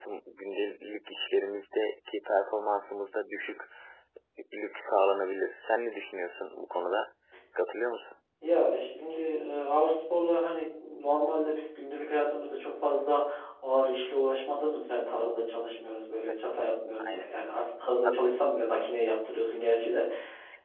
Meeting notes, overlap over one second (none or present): none